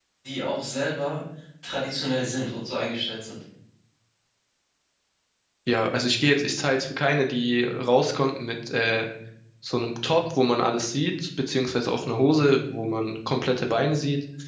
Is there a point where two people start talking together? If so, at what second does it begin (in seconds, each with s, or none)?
none